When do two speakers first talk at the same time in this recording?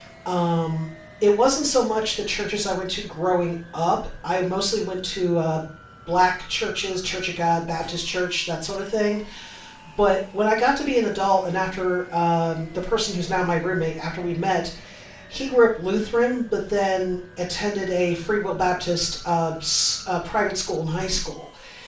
none

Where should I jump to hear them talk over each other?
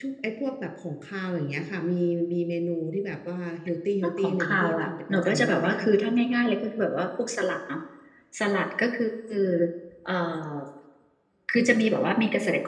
4.0 s

